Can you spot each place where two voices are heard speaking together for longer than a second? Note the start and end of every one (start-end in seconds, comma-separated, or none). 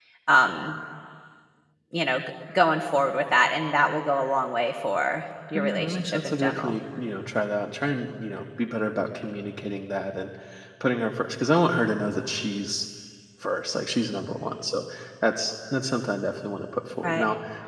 5.5-6.7